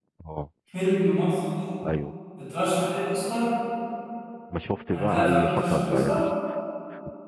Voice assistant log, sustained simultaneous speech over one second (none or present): present